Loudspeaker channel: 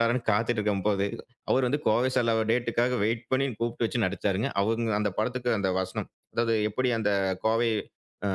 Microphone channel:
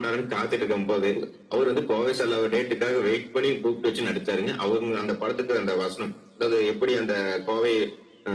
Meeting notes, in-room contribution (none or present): none